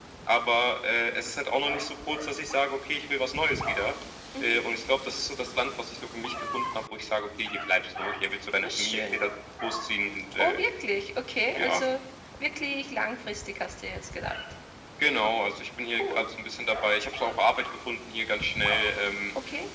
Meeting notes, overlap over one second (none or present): none